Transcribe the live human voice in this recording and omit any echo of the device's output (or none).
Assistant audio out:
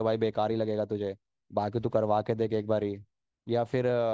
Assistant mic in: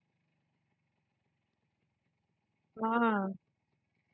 हाँ